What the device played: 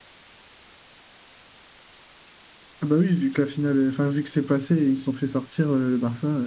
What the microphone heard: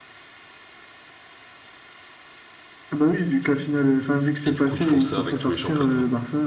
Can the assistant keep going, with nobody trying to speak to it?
No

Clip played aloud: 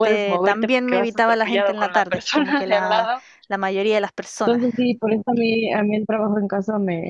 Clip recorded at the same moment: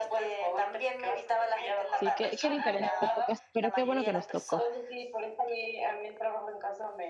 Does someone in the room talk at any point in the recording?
Yes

